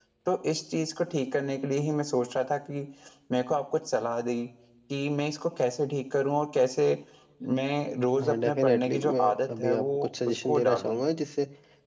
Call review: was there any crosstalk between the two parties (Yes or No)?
Yes